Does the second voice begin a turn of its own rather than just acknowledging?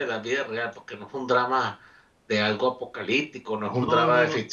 Yes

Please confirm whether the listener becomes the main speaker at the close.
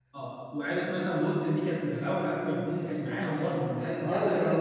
Yes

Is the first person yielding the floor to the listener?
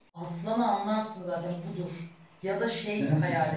No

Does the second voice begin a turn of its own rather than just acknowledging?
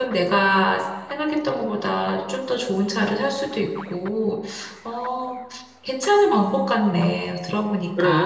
Yes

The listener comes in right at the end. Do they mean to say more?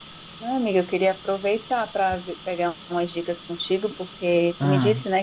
No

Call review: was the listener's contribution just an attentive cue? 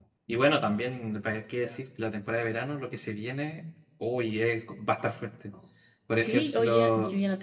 No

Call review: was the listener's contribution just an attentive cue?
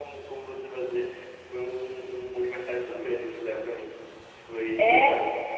Yes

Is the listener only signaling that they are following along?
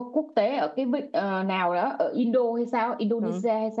No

